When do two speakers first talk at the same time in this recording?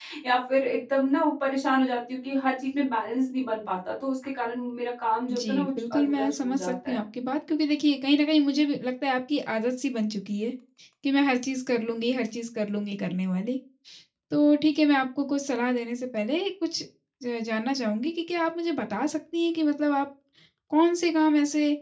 5.3 s

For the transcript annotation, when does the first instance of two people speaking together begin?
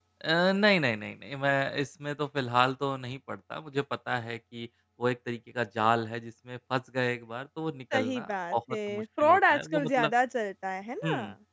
7.9 s

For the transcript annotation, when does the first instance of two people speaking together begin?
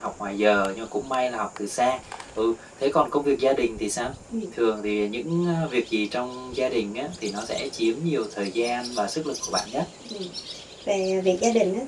none

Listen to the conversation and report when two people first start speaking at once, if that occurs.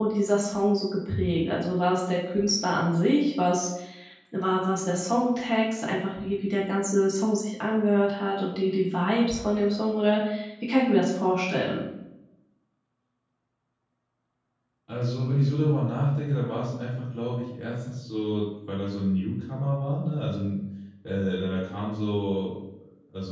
none

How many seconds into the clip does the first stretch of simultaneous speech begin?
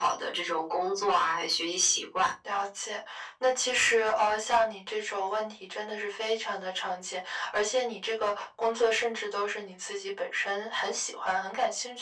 none

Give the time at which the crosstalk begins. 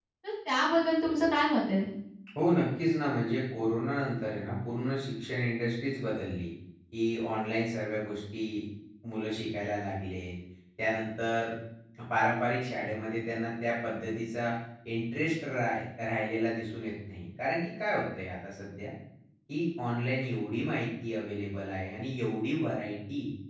none

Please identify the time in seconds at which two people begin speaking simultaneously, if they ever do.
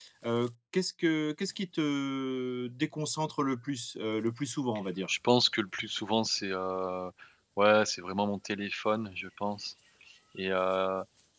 none

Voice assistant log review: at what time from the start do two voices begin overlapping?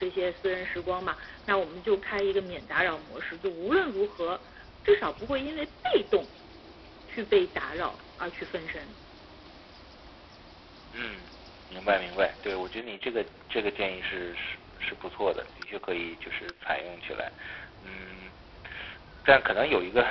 none

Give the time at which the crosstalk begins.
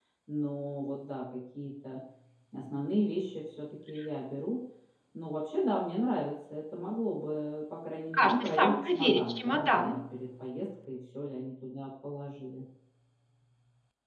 8.1 s

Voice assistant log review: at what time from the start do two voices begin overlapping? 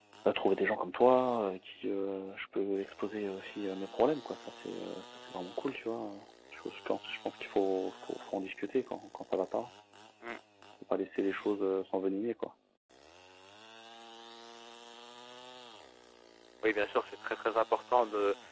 none

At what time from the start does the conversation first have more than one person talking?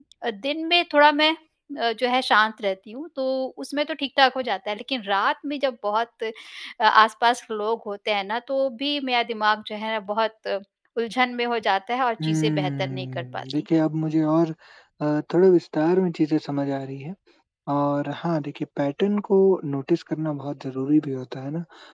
12.2 s

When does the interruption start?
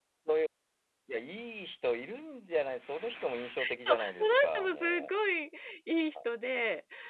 3.9 s

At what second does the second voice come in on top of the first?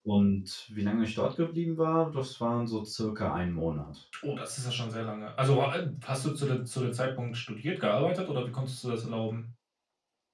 none

